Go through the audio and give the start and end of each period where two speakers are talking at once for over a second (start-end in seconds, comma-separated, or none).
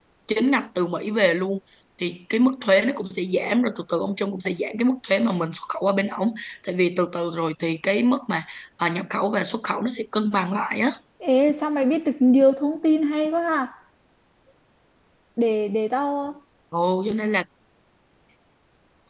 none